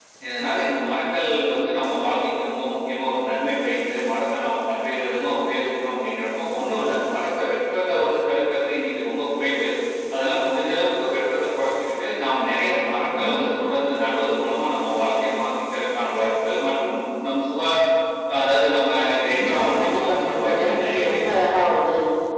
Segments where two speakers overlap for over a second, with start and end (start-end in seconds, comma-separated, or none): 19.3-21.2